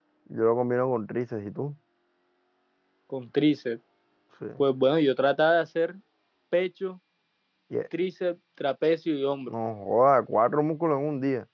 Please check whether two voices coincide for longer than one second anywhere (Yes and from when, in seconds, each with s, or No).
No